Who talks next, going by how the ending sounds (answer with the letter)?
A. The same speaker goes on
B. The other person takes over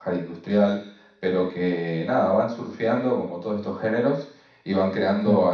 A